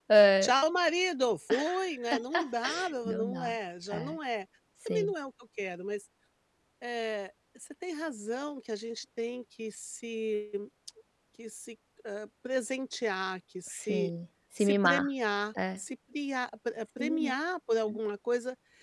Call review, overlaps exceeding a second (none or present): none